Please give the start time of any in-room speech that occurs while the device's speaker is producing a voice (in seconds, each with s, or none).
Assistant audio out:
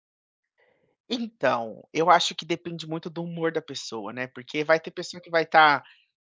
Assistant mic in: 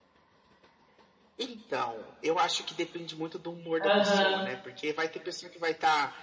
3.8 s